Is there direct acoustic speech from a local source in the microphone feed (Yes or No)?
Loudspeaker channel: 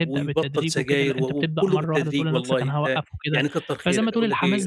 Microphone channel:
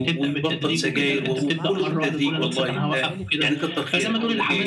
Yes